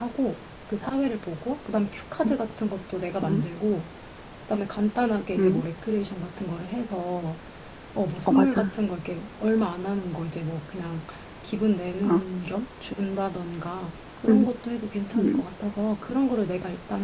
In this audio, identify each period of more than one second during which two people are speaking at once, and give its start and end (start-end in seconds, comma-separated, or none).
none